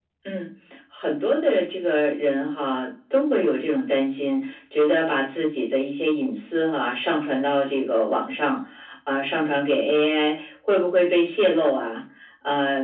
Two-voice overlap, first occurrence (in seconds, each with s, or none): none